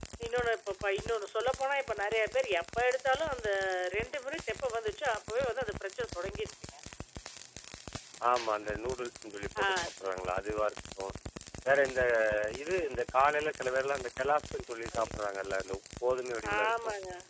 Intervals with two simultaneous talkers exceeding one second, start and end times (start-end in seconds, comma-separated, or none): none